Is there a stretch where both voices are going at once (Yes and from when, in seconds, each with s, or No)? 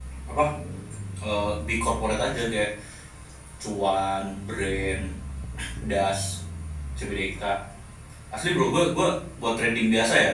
No